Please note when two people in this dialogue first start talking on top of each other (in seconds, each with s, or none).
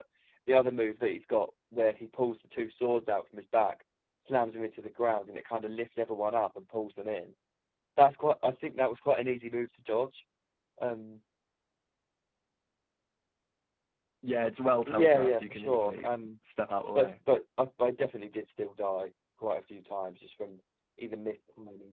14.9 s